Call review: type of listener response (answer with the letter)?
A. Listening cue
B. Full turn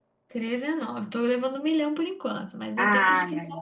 B